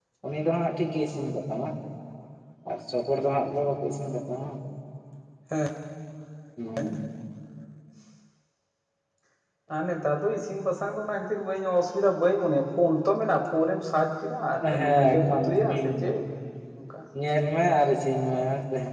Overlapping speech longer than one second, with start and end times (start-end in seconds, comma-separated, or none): 14.6-16.2